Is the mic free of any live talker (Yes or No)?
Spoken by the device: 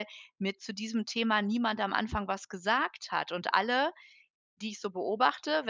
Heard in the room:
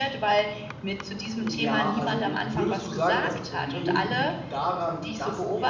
No